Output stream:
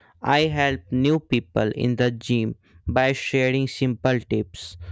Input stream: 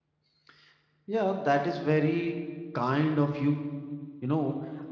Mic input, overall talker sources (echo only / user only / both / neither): user only